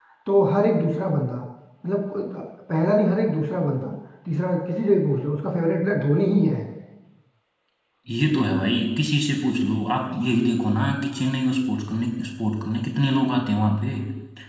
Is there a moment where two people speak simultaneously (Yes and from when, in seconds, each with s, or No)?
No